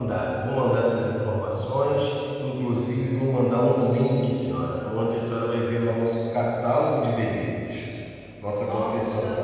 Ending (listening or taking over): listening